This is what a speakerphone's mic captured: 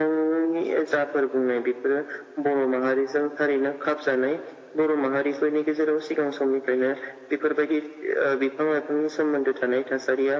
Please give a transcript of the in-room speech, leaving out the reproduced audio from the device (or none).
none